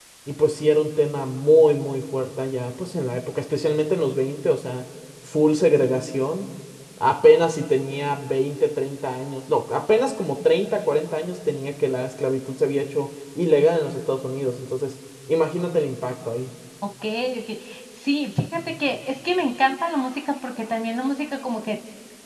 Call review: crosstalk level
none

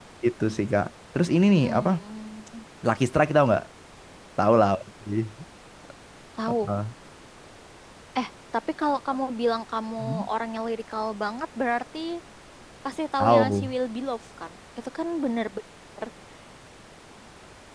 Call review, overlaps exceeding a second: none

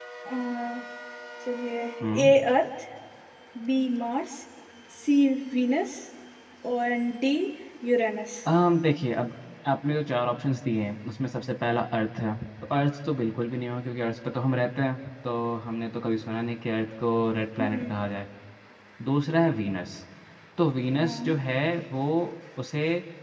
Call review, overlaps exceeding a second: none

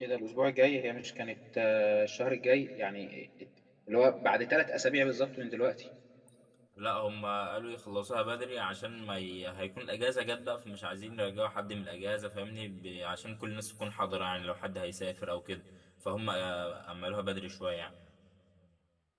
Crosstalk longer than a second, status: none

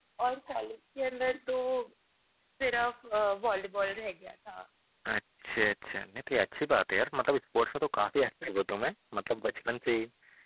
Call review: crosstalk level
none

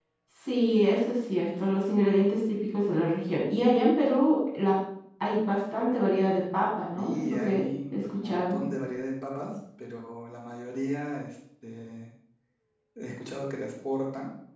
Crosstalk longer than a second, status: present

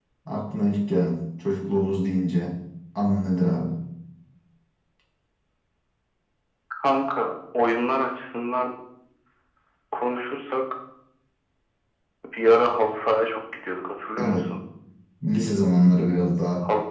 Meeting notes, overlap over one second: none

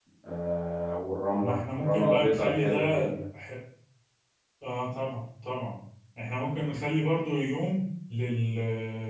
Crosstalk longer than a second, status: present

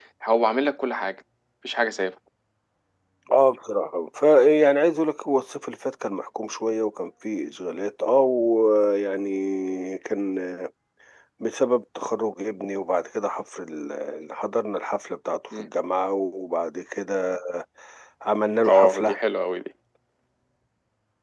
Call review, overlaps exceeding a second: none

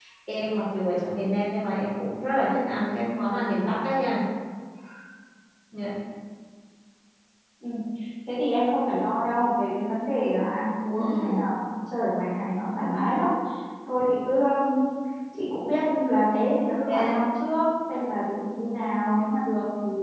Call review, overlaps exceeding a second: none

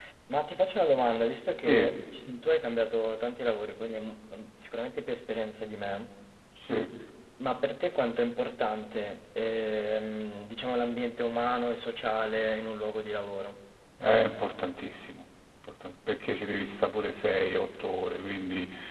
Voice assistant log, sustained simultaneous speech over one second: none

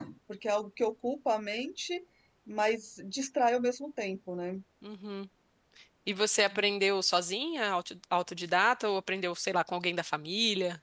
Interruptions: none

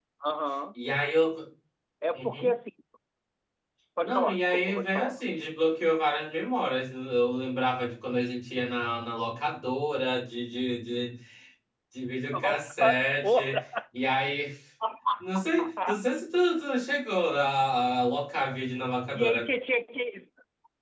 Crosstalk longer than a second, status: present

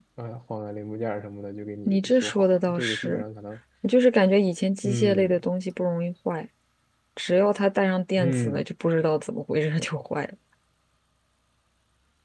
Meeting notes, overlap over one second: present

